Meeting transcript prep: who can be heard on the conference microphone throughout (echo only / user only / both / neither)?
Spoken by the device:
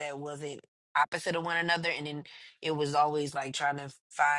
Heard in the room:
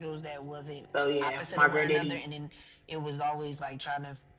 both